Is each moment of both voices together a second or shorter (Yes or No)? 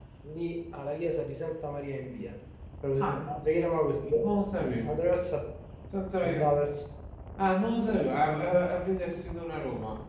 Yes